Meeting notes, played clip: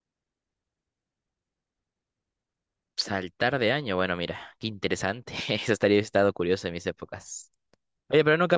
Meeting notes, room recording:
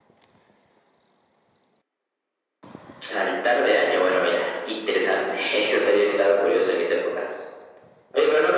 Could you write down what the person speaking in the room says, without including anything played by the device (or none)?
none